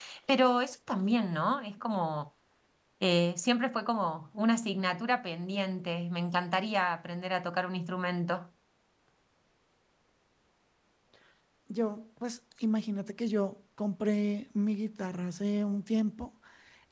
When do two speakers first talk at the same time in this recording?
none

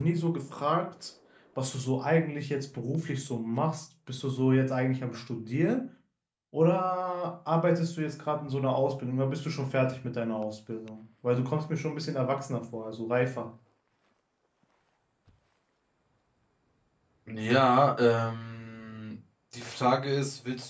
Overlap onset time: none

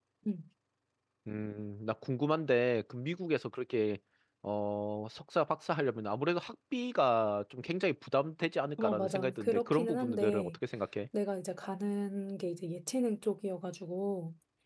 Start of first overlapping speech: 9 s

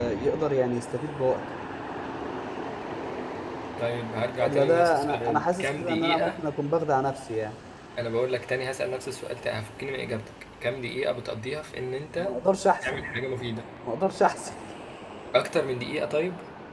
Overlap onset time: 4 s

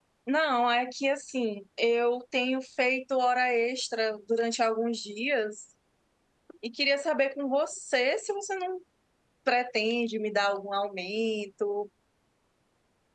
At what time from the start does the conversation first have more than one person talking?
none

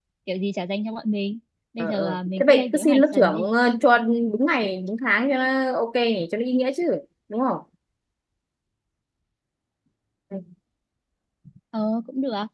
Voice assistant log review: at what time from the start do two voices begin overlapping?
2 s

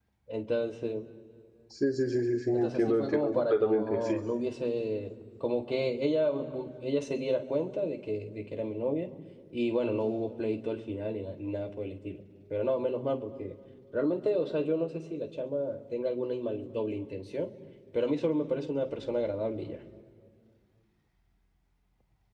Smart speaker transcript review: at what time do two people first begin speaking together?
3 s

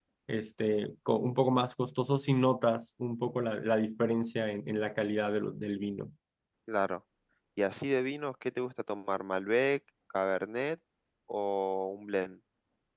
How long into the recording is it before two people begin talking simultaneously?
none

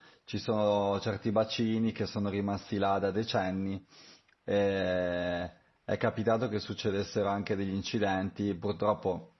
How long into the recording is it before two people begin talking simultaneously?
none

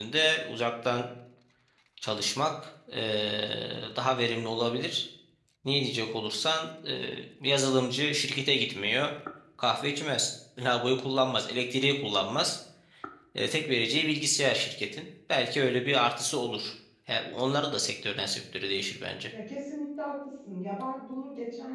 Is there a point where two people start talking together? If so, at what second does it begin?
none

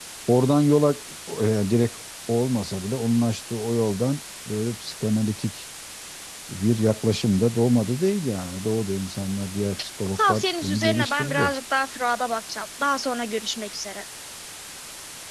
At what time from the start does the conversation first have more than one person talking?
10 s

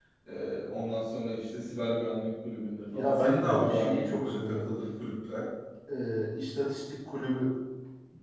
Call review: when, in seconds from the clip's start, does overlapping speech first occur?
3 s

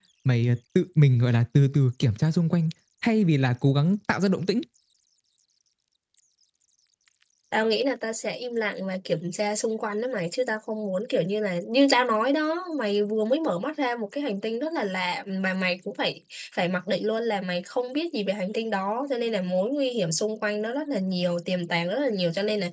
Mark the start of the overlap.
none

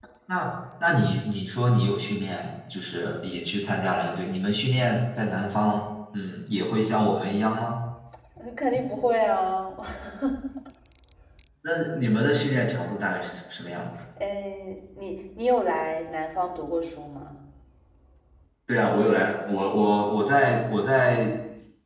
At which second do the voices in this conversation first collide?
none

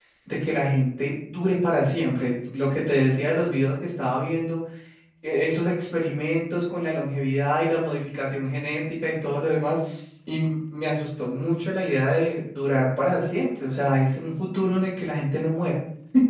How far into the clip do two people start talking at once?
none

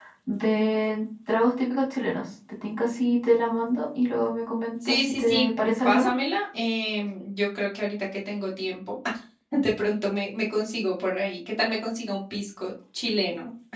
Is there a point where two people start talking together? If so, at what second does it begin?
5 s

